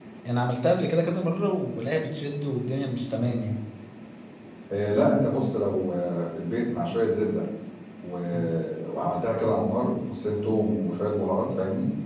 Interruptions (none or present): none